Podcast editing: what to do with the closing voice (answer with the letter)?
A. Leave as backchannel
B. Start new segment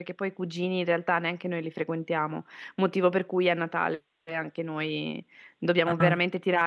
A